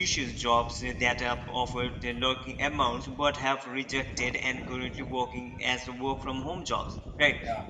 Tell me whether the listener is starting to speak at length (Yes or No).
No